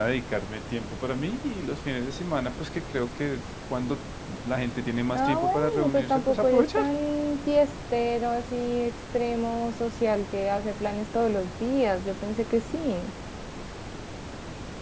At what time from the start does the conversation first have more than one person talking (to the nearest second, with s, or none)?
5 s